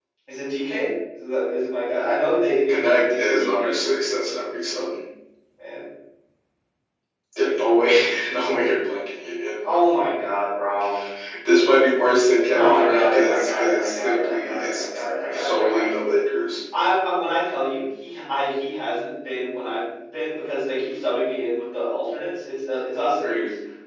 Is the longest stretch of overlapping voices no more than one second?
No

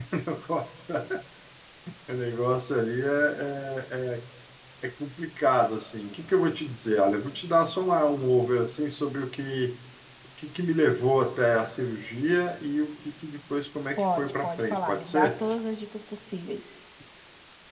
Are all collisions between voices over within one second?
No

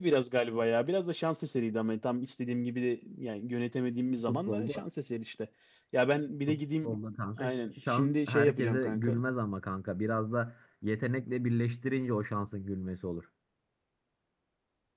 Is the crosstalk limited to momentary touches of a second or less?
No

